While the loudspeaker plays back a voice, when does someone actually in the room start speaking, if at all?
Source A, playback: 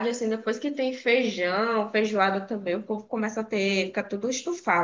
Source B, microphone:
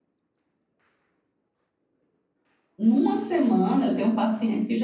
2.8 s

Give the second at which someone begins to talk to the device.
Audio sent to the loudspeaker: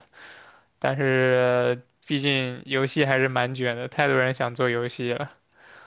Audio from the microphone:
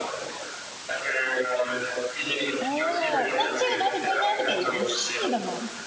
2.5 s

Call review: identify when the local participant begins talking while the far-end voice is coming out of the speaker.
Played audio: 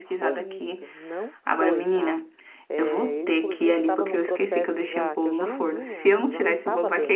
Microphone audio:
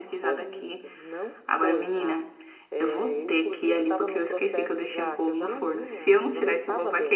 none

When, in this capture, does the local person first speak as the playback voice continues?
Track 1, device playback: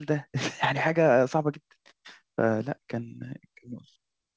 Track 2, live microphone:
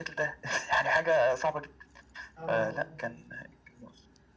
2.4 s

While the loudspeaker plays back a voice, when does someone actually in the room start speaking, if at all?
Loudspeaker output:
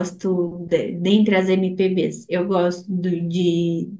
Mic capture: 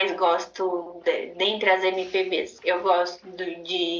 none

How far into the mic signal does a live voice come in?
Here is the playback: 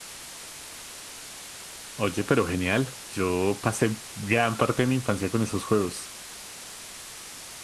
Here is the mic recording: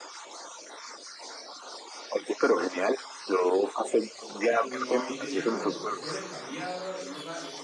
4.6 s

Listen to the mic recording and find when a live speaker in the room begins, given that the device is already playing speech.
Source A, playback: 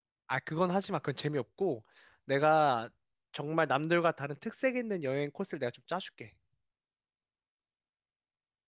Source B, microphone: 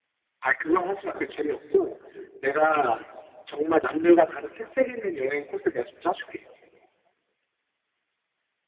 none

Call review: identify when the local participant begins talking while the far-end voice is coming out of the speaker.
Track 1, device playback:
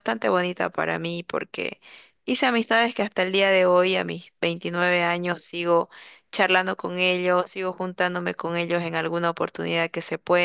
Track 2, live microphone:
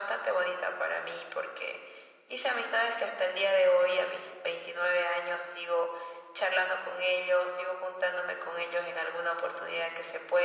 none

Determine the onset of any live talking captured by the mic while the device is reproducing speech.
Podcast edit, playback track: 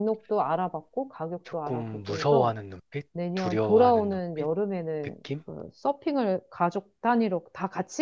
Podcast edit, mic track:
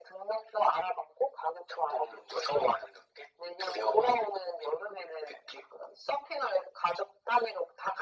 none

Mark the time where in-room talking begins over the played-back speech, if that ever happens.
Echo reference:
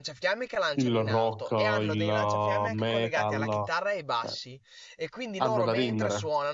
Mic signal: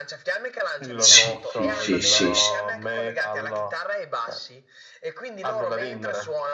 1.0 s

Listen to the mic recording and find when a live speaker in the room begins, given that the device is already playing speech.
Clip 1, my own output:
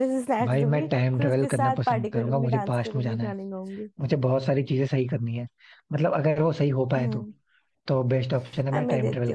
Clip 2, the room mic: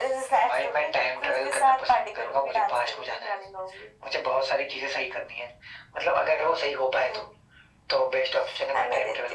none

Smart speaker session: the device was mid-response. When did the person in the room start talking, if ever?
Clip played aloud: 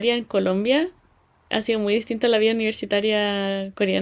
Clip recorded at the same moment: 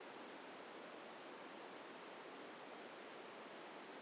none

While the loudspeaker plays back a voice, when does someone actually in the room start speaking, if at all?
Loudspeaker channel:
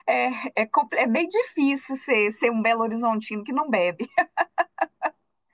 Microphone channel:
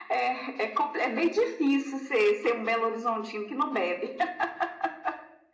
none

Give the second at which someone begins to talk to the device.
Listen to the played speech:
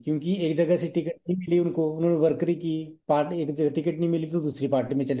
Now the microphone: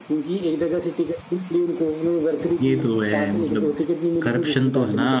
2.6 s

